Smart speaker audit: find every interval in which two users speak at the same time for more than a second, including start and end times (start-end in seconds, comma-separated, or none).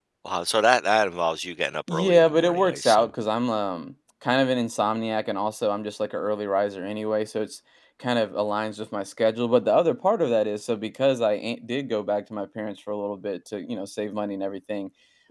1.9-3.1